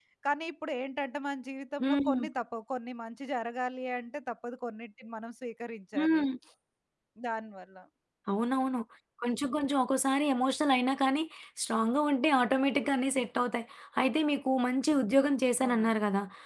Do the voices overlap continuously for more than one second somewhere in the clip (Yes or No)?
No